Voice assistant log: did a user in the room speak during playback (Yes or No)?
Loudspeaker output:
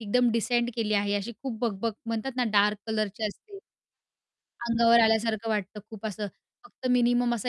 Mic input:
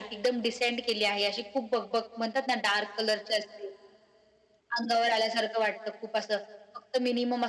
No